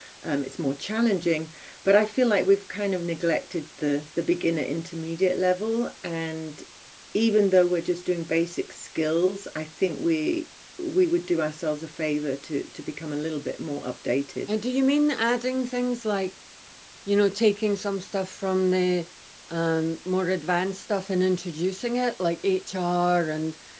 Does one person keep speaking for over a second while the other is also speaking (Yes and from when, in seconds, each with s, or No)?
No